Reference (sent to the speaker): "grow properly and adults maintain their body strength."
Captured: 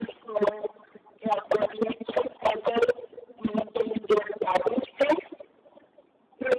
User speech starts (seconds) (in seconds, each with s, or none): none